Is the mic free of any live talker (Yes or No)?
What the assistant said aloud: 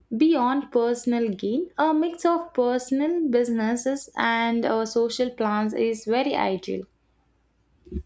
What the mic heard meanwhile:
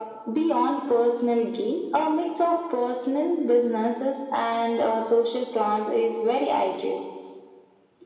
Yes